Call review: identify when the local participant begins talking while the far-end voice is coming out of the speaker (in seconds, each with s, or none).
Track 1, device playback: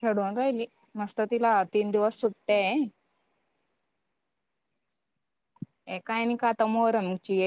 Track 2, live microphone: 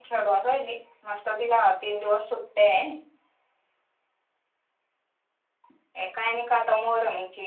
none